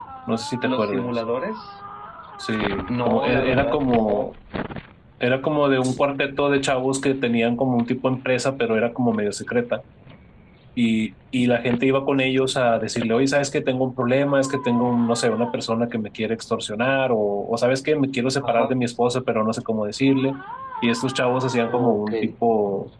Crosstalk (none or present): present